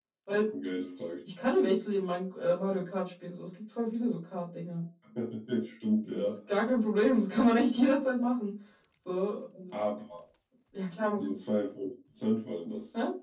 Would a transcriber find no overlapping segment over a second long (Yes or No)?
Yes